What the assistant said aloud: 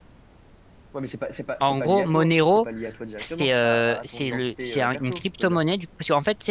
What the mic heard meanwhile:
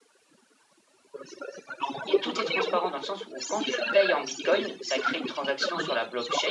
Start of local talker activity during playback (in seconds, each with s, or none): 2.1 s